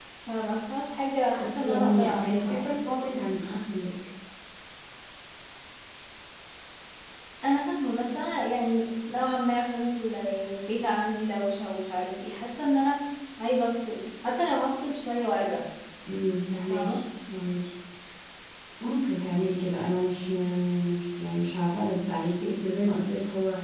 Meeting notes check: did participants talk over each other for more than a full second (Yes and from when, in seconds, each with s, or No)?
Yes, from 1.3 s